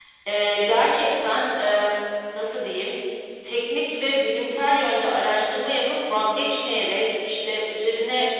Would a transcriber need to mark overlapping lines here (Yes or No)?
No